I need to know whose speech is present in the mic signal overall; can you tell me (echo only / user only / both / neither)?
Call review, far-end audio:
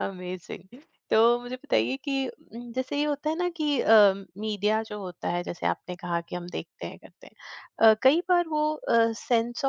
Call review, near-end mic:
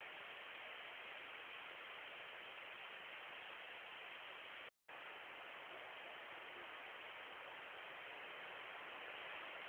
neither